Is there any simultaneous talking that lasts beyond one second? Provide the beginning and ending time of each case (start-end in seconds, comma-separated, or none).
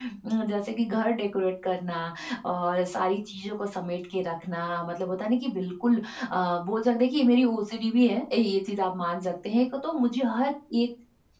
none